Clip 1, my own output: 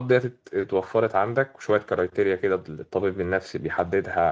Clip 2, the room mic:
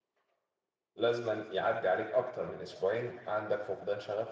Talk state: user only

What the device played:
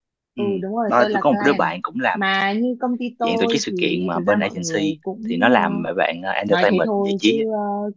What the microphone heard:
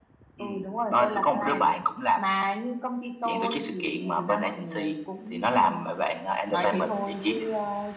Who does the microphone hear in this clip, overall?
echo only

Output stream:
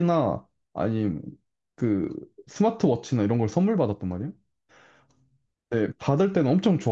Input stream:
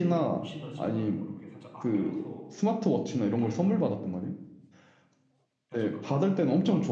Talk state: both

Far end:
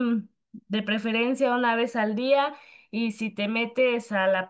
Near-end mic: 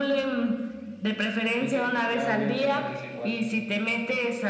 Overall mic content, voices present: both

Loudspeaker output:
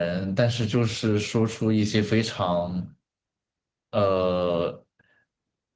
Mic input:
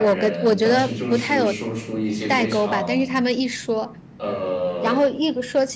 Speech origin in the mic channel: both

